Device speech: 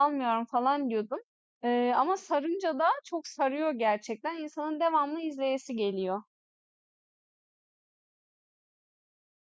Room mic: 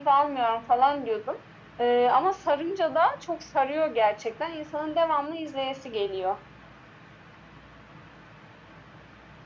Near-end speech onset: none

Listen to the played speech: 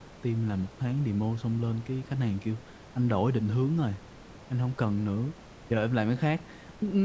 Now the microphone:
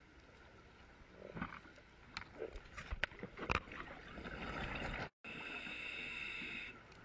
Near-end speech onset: none

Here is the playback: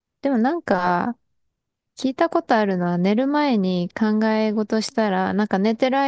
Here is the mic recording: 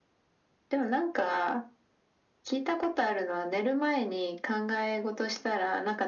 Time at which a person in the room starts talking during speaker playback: none

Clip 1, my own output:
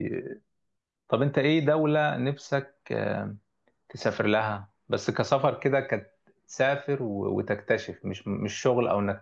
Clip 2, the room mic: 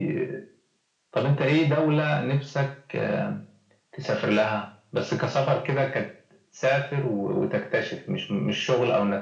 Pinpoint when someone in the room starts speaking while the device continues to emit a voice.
none

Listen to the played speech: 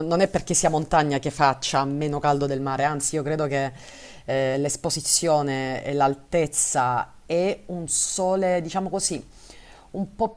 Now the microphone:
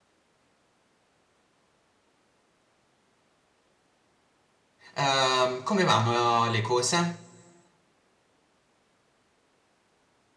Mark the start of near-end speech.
4.9 s

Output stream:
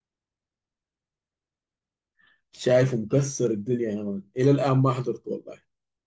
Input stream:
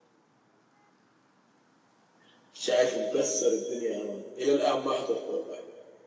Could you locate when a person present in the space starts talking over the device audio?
none

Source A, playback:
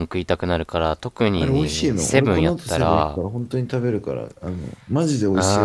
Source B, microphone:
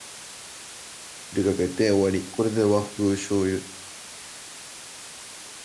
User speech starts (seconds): 1.3 s

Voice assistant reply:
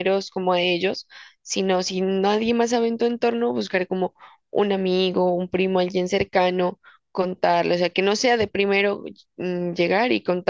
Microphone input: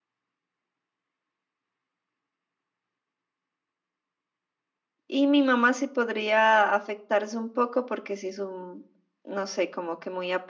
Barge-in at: 5.1 s

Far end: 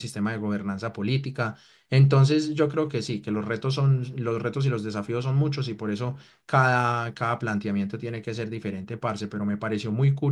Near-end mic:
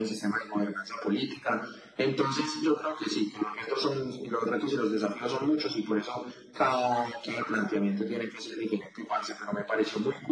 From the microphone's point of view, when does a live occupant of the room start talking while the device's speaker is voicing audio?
none

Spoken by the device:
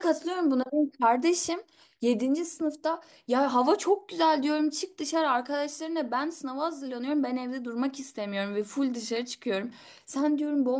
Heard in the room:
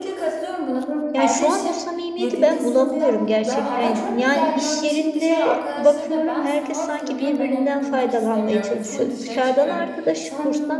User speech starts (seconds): 1.1 s

